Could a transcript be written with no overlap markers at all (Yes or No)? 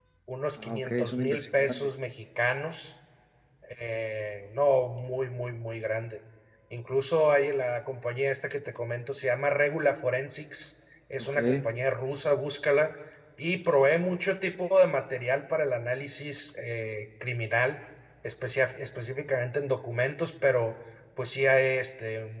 No